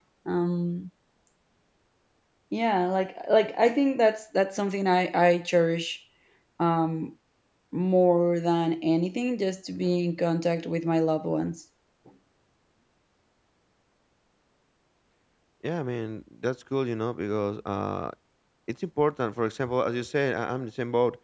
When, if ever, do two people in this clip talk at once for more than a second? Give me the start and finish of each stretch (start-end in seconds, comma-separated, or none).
none